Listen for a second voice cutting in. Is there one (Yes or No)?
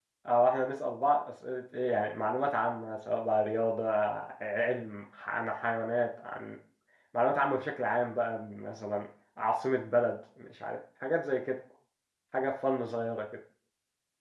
No